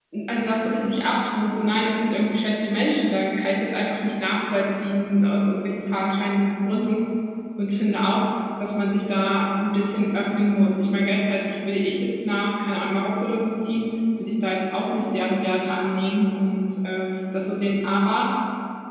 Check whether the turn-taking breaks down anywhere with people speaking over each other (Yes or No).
No